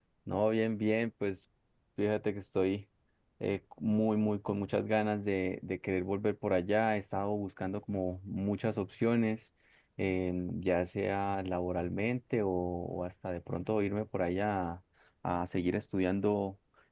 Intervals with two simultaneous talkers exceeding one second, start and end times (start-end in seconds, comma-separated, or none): none